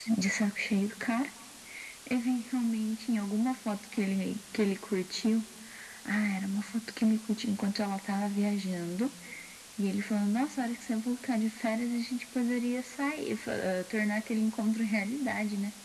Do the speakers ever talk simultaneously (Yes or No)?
No